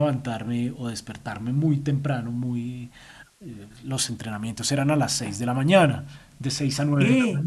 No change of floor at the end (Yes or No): No